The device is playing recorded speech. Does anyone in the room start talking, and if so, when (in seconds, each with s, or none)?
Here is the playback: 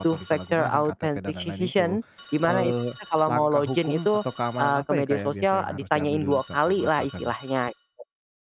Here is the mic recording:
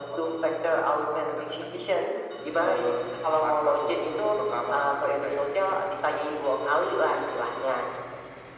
none